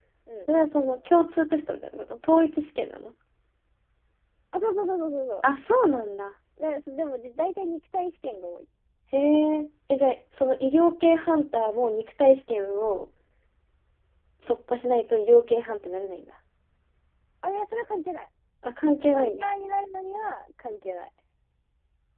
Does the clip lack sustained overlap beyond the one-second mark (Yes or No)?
Yes